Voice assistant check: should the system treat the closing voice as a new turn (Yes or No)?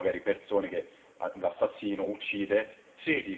No